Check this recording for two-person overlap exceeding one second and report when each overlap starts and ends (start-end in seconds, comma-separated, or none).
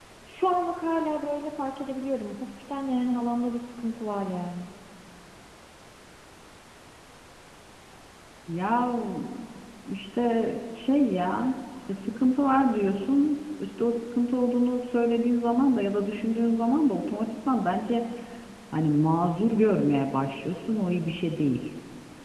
none